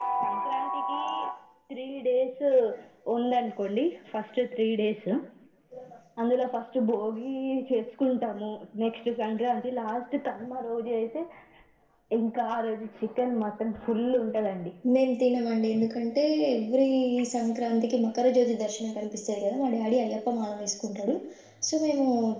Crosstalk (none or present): none